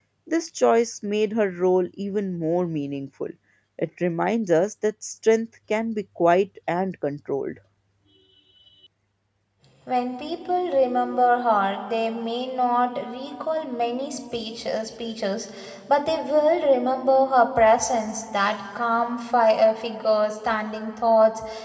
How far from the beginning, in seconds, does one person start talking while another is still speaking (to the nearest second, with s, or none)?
none